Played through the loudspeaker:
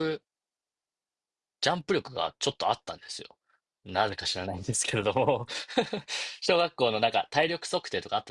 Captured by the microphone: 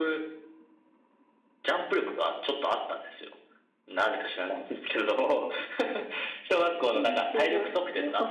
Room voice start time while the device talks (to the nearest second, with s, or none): 7 s